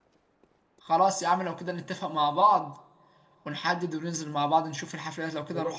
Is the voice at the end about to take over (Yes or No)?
Yes